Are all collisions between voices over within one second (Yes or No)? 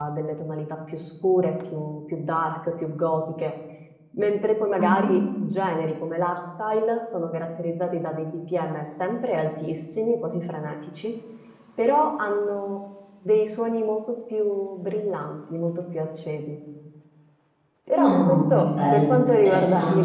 No